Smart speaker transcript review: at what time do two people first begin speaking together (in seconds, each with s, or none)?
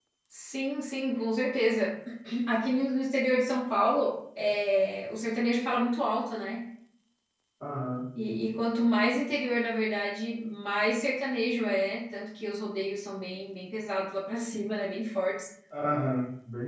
none